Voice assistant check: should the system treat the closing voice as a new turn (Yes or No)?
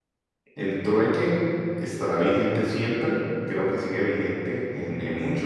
No